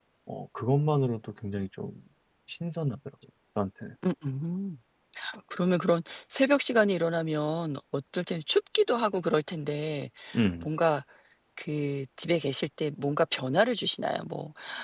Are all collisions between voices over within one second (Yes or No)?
Yes